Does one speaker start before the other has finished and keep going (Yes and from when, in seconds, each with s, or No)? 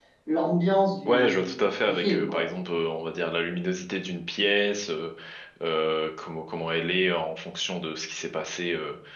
Yes, from 1.1 s